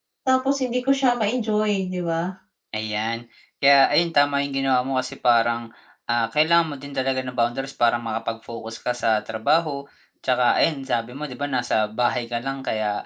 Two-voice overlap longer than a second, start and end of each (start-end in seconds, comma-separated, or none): none